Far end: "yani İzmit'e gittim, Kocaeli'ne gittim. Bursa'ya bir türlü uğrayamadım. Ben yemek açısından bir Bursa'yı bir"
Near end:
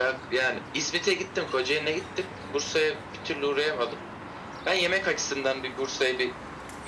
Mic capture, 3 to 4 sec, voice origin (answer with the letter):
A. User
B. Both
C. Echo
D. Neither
C